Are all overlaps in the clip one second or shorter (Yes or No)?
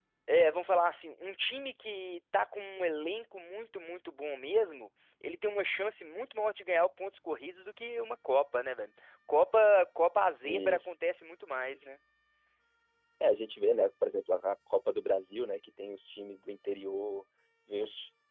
Yes